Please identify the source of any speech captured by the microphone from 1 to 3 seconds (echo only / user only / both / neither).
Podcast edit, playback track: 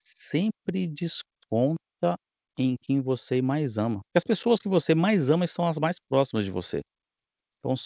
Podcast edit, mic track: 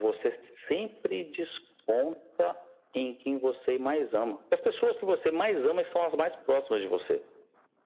echo only